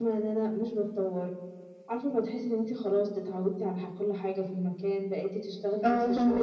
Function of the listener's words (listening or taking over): listening